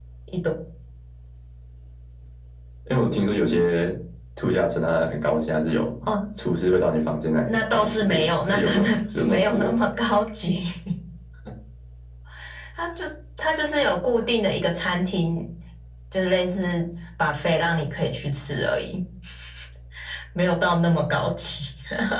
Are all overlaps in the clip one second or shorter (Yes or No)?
No